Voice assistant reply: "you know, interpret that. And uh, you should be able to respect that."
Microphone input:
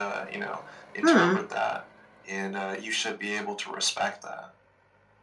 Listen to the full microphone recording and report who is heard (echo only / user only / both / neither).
both